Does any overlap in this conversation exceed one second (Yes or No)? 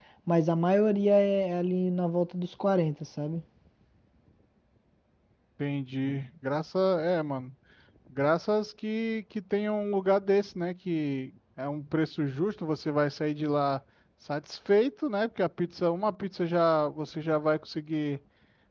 No